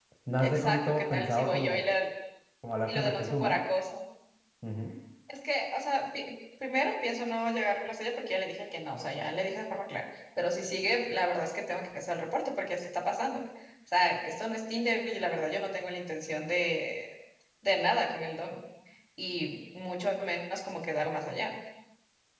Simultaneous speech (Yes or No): Yes